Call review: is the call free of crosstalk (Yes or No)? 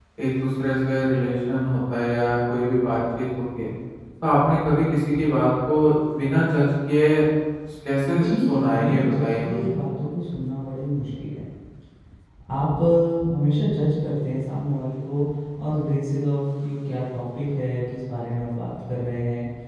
No